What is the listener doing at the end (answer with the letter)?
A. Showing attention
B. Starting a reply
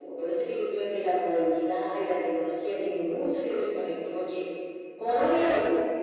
A